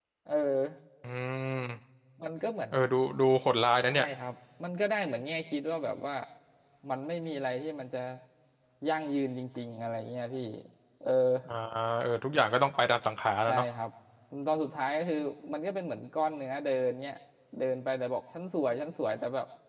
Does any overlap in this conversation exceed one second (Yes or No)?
No